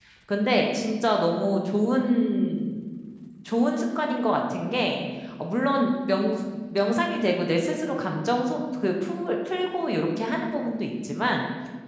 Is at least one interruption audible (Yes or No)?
No